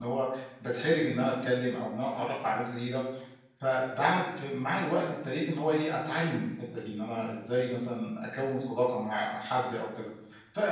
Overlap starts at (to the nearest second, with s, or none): none